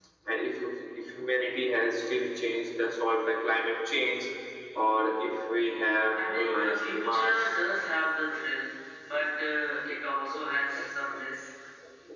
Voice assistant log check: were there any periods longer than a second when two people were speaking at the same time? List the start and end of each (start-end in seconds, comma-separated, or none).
6.2-7.5